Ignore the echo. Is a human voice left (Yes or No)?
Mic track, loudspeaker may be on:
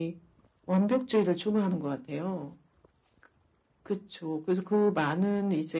No